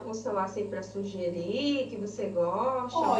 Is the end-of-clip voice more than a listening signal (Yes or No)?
Yes